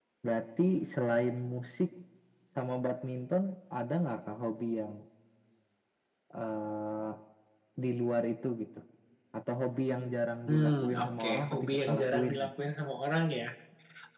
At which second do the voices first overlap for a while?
10.5 s

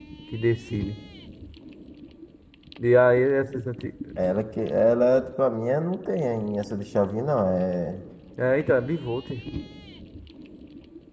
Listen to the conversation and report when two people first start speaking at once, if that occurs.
none

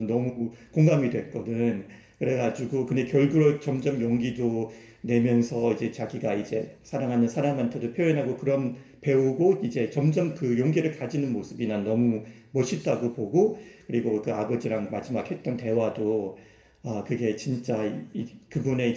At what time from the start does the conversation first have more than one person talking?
none

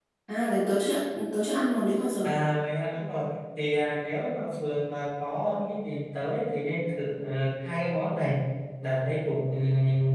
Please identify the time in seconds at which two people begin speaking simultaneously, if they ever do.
none

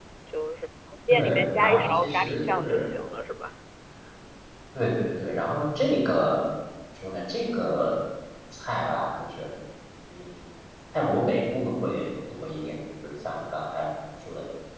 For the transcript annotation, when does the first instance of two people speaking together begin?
1.1 s

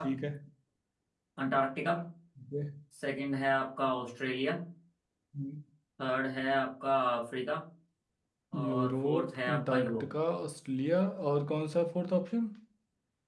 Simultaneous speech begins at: 8.6 s

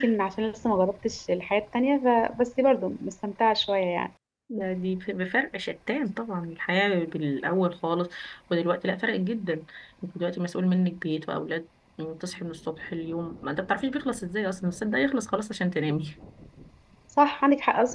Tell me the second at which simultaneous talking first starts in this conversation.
none

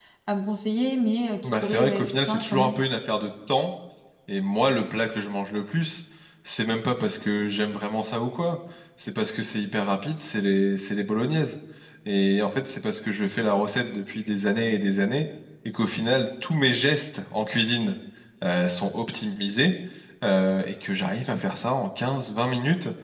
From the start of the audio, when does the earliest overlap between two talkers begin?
1.4 s

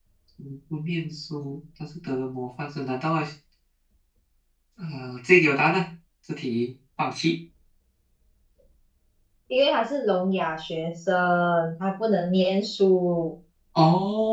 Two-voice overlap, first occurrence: none

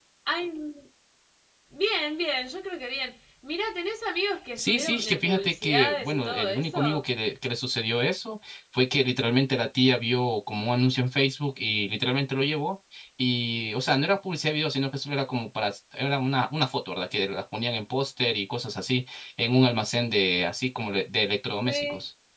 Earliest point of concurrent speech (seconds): 4.6 s

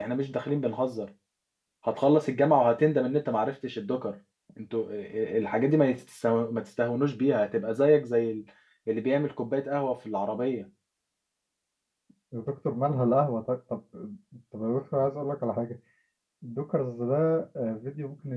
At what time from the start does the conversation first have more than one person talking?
none

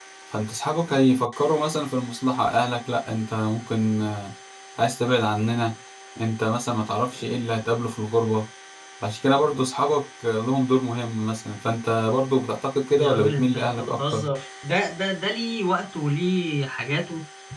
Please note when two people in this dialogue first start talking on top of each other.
13.0 s

